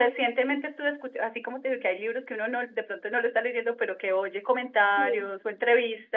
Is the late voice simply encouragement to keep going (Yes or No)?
Yes